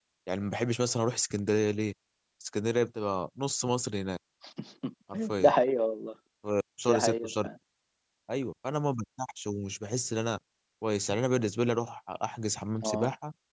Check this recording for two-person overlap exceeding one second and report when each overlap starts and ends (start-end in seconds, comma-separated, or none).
none